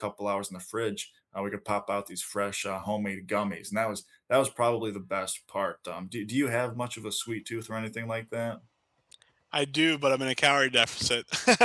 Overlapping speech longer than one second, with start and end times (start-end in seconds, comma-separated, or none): none